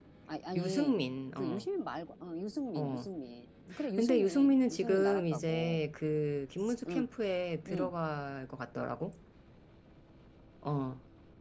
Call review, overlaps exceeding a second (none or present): present